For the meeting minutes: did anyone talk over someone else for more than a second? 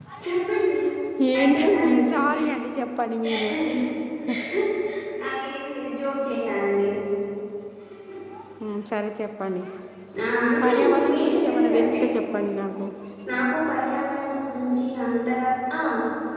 Yes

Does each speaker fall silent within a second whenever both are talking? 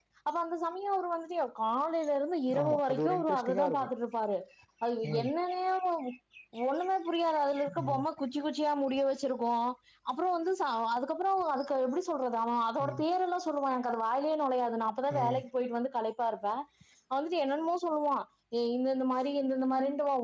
No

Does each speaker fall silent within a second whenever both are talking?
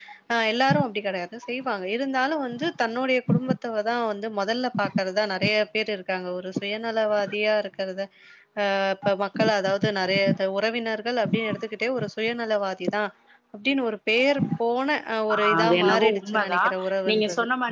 No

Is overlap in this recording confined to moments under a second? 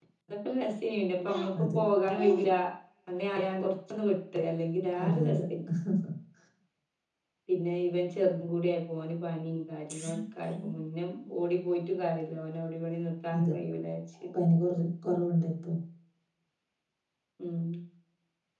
Yes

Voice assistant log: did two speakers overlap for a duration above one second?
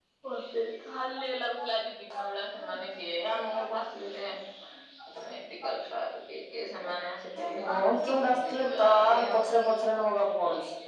Yes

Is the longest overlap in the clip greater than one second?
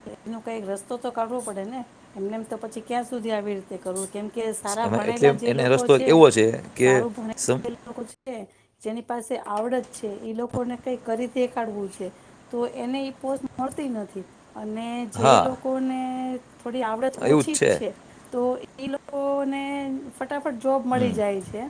Yes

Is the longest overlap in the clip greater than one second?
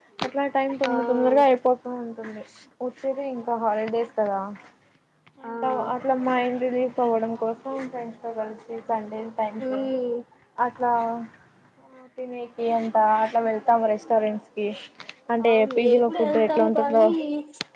Yes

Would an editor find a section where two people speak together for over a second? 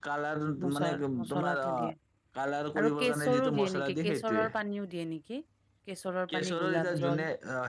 Yes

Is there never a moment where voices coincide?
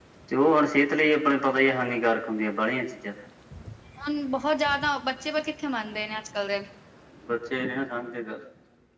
Yes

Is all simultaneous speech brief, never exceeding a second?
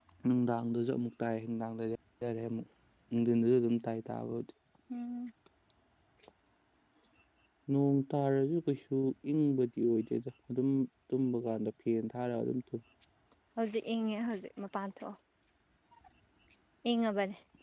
Yes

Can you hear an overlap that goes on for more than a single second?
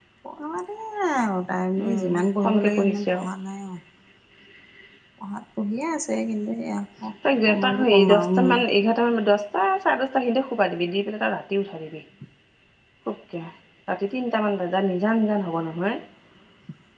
Yes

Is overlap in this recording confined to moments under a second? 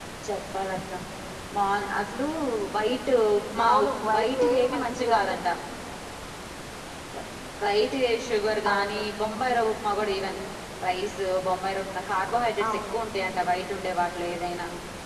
No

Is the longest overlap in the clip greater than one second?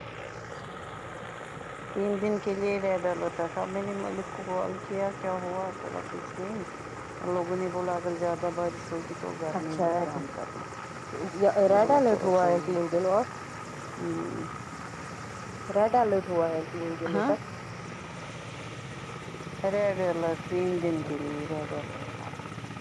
Yes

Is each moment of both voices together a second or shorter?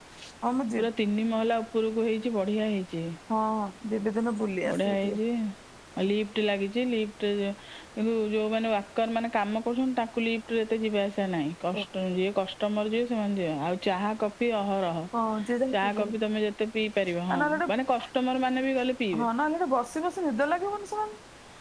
Yes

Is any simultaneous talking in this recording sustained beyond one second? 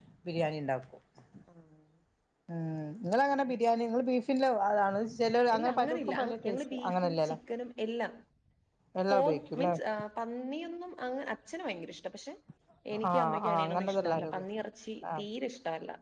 Yes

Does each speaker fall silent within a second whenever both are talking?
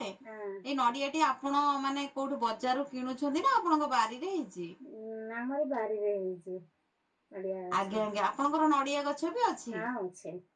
Yes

